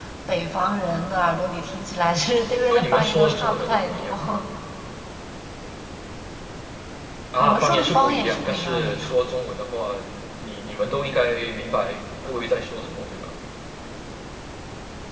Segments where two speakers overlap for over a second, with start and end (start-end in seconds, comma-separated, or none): 2.7-4.2, 7.4-9.2